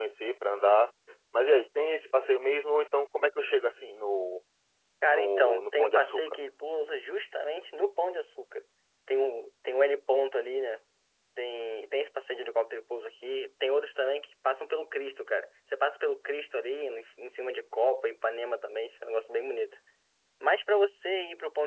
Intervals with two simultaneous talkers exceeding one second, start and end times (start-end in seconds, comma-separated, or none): 5.1-6.4